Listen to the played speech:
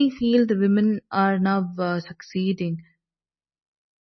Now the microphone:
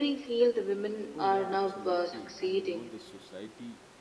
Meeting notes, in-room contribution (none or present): present